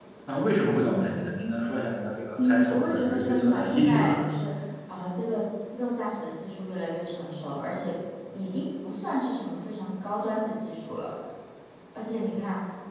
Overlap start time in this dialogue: 2.4 s

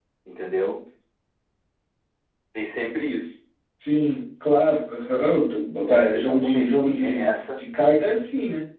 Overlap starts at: 5.9 s

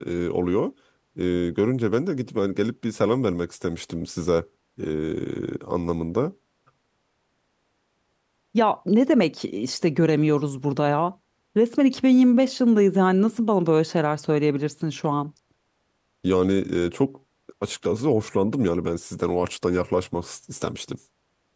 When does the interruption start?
none

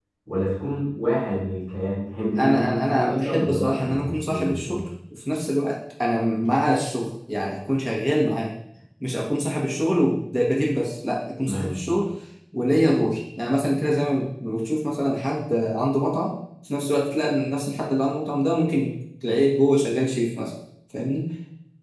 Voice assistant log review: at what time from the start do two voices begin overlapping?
2.4 s

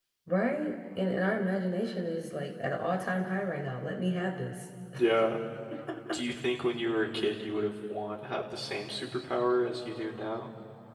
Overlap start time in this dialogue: none

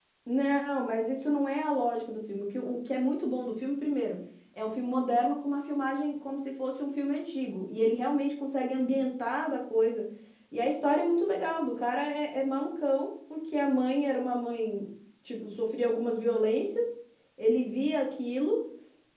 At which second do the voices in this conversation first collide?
none

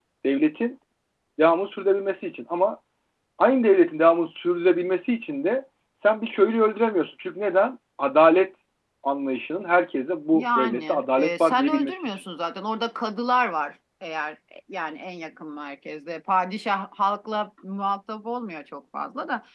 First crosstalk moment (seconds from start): 10.3 s

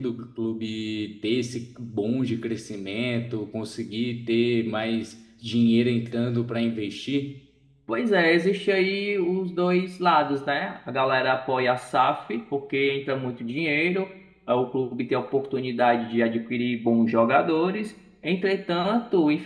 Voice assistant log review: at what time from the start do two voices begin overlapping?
none

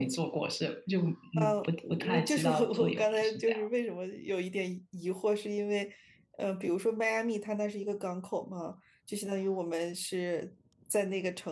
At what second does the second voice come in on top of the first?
1.4 s

